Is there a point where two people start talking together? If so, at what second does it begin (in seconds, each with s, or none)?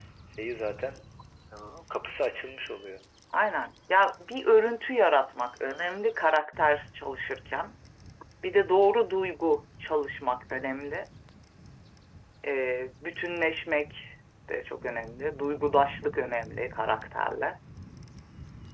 none